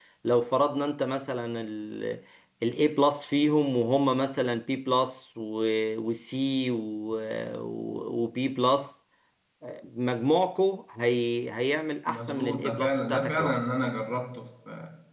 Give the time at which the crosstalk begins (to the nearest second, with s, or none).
12 s